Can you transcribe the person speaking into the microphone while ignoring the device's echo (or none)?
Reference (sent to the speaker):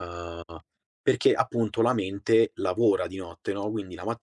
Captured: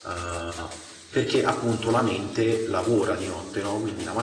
none